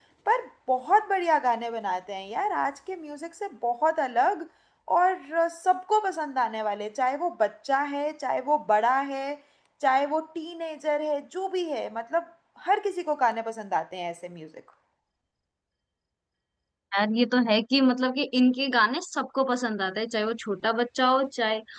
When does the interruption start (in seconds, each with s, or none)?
none